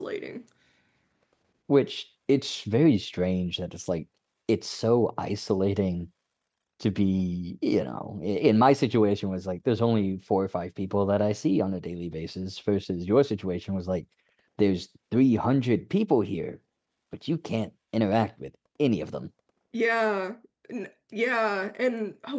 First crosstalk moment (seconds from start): none

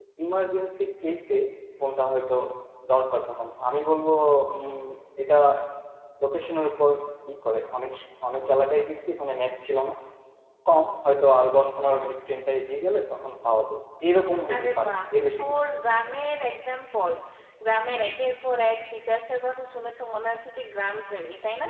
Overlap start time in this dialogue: 14 s

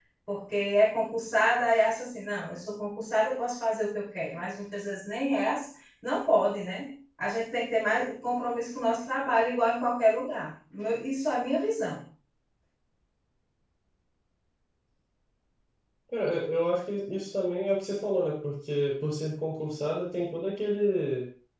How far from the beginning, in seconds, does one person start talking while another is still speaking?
none

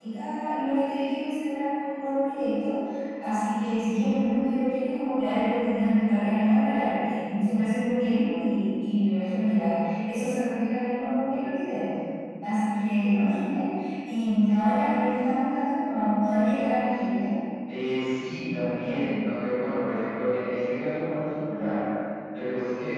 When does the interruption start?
none

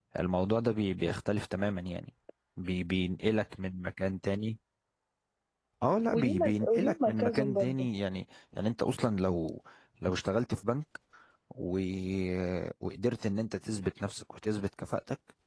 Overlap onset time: 6 s

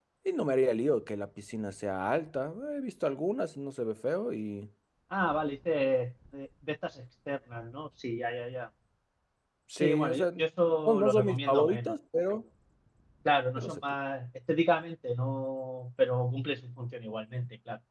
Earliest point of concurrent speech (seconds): 10 s

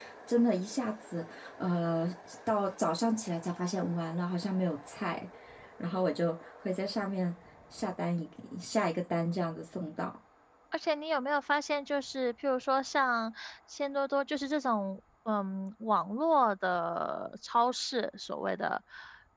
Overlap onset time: none

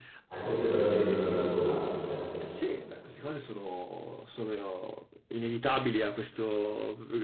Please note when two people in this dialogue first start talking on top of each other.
none

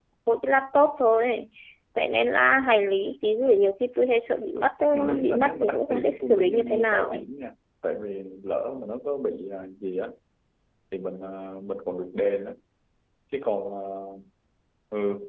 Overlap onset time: 5 s

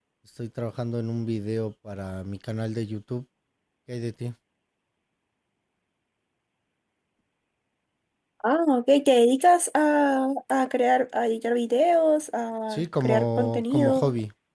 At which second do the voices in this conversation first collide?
13 s

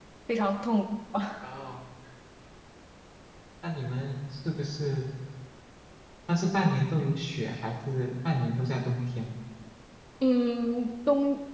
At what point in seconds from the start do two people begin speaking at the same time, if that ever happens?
none

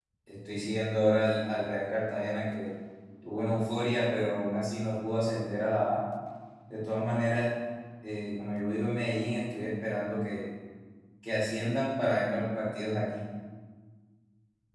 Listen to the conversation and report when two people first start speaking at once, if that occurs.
none

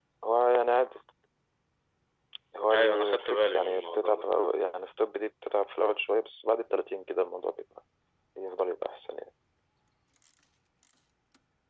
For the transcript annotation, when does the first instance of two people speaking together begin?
3 s

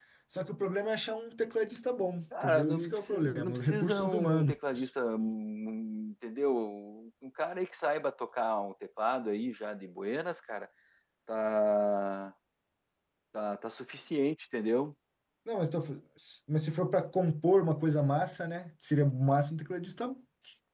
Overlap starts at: 2 s

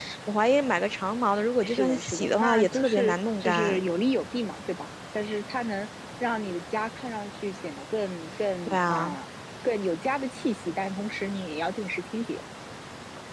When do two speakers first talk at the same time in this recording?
2 s

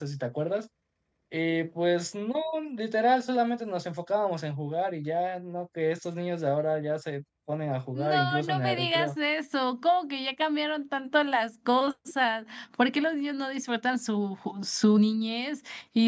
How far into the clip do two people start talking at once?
8 s

